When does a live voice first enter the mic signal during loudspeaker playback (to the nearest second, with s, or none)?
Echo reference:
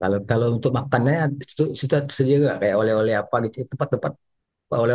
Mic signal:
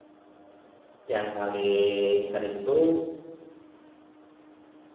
1 s